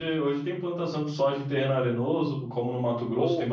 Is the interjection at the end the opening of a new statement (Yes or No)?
Yes